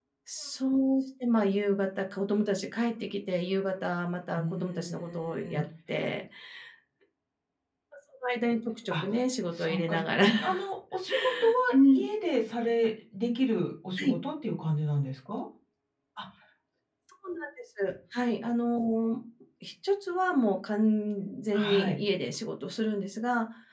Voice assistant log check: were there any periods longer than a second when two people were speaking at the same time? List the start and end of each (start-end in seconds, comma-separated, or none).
4.4-5.6